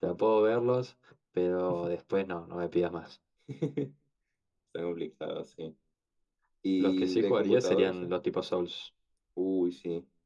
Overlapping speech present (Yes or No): Yes